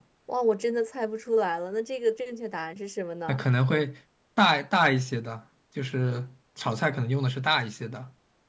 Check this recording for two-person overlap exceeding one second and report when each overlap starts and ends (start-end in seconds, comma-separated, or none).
none